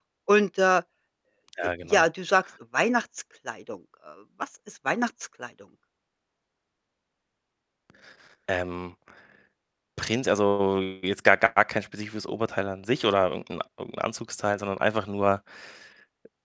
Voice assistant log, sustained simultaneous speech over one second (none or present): none